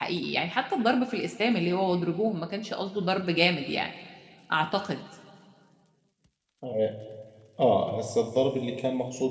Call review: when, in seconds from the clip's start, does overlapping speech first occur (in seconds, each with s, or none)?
none